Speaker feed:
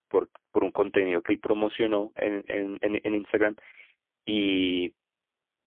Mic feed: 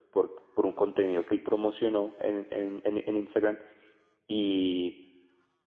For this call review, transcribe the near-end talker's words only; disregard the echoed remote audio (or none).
none